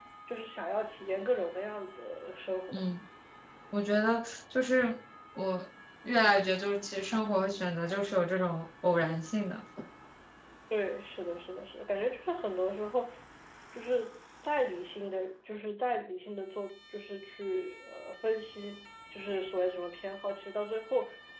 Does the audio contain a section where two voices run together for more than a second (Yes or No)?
No